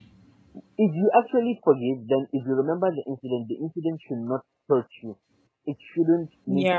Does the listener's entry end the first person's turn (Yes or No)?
No